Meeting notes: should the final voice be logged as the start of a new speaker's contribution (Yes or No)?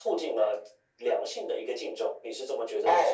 Yes